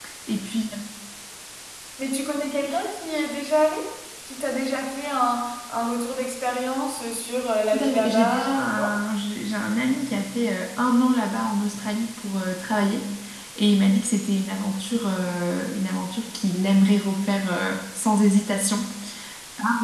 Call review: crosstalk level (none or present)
present